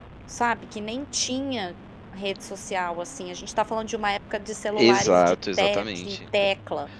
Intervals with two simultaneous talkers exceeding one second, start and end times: 4.7-6.2

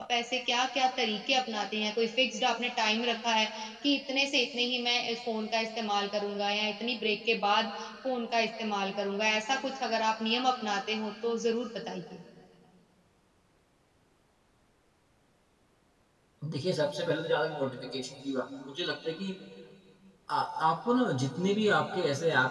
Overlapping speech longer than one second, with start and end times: none

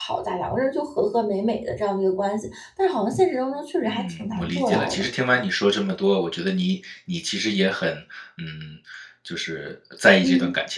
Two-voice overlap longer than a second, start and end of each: 3.8-5.1

